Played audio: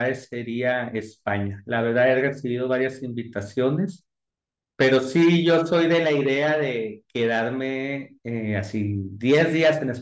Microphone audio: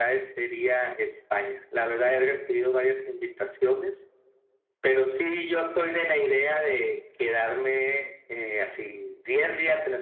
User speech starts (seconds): none

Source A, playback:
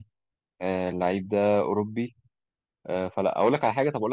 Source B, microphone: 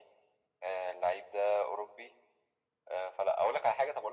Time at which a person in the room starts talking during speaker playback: none

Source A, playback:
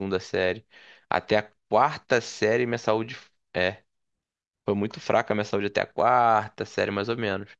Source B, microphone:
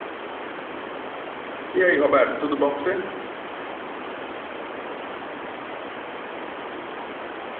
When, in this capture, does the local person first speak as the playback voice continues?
2 s

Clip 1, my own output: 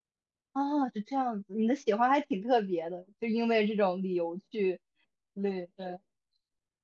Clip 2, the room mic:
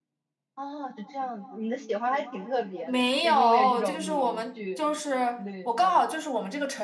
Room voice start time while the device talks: 3 s

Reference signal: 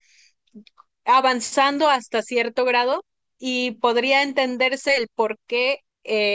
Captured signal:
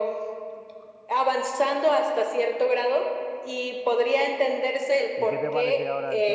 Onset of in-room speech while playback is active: 5 s

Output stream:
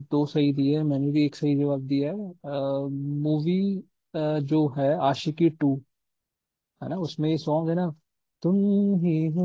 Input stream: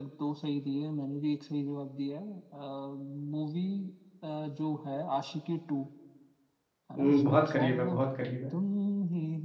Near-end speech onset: 7 s

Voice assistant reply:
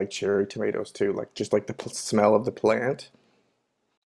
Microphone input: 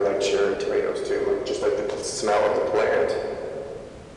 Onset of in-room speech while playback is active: none

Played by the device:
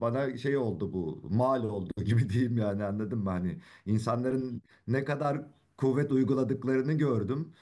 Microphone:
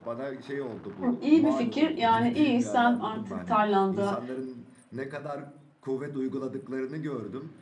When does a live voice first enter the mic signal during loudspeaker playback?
1 s

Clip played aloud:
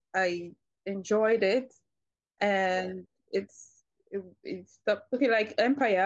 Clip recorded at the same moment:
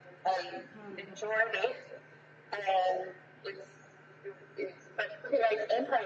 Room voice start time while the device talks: 1 s

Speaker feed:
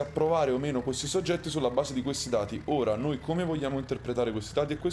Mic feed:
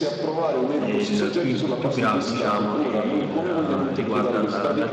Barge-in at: 1 s

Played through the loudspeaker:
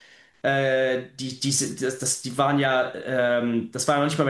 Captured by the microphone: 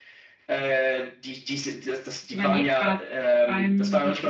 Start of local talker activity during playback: 2 s

